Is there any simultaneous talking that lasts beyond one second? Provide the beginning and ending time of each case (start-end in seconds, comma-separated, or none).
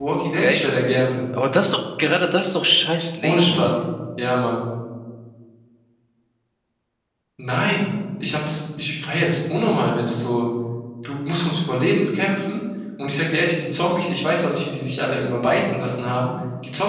none